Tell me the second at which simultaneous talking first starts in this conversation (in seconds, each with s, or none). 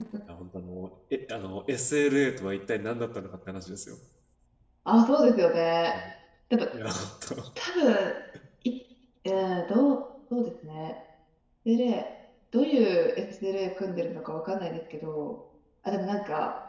none